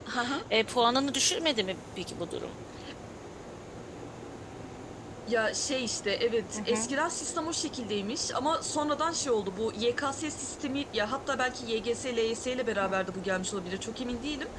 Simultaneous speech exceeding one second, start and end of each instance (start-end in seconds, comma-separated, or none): none